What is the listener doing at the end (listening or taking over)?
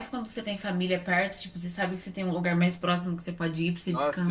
taking over